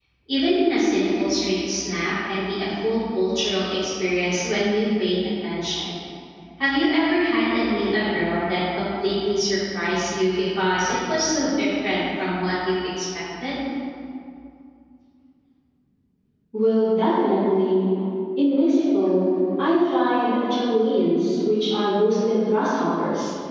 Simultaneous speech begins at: none

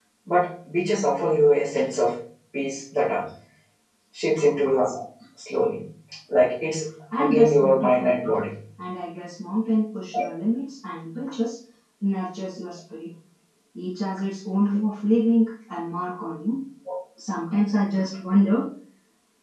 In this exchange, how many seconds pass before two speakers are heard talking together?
7.2 s

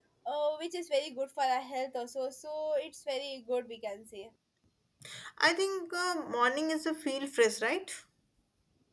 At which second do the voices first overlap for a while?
none

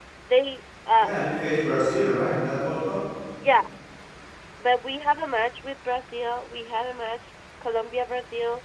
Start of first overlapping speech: none

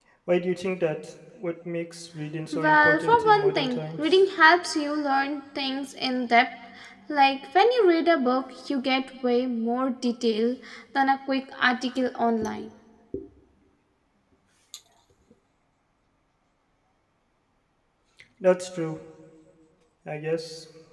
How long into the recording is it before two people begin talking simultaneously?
2.5 s

